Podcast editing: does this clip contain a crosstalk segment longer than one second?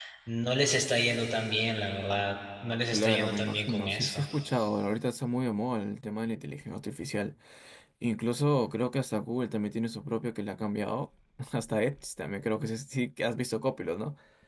Yes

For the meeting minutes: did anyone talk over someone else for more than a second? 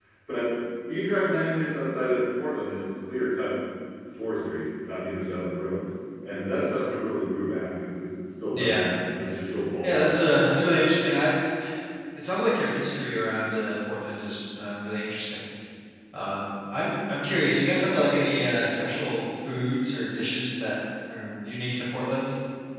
No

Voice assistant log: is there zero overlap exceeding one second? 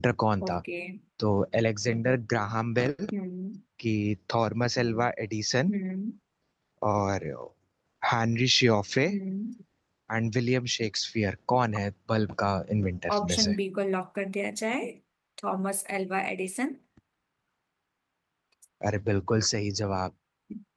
Yes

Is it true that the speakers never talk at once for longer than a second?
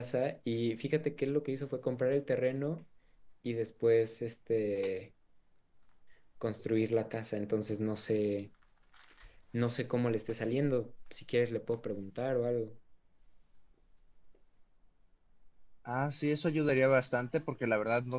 Yes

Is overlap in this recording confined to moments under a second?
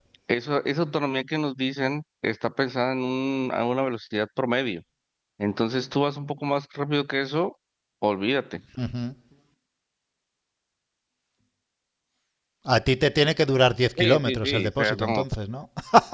No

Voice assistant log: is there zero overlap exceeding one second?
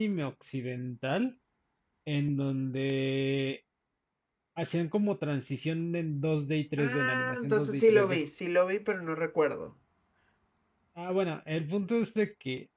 No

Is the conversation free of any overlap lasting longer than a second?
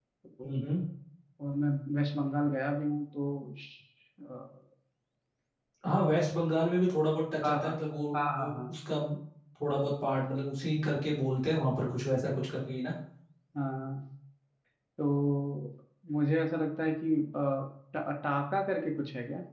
Yes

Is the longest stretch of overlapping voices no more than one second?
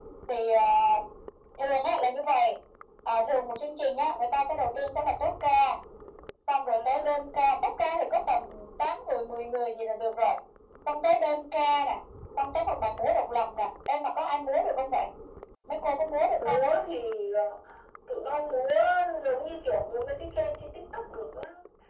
Yes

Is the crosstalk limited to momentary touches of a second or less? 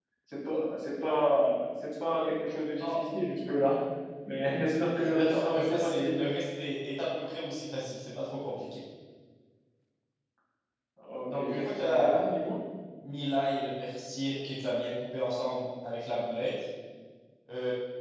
No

